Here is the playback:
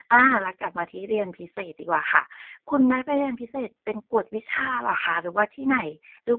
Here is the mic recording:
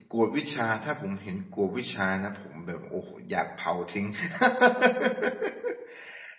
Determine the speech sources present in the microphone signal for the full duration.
user only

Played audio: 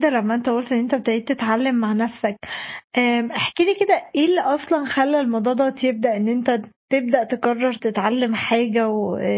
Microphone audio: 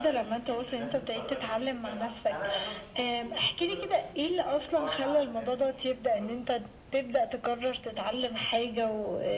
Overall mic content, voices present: both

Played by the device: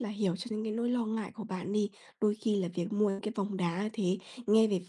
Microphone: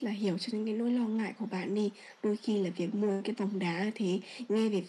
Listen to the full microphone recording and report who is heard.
echo only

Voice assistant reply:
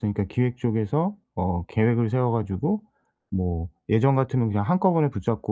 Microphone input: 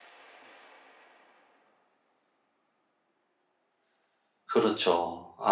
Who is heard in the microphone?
user only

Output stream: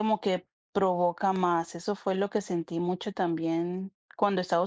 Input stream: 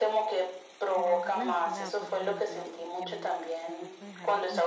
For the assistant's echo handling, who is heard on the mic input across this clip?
both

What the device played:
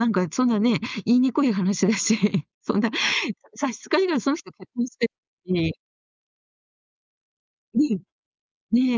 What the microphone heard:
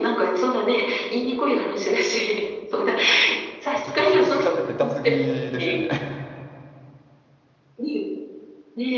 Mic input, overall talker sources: both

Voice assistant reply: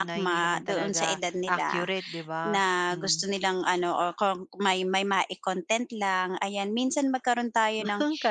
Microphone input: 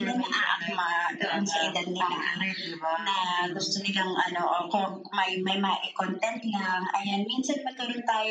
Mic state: echo only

